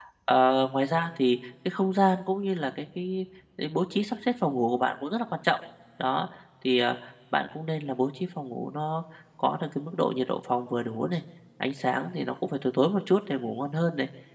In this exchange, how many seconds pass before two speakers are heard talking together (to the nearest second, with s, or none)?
none